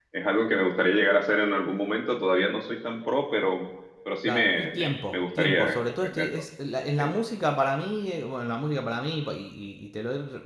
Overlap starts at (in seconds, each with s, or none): 4.3 s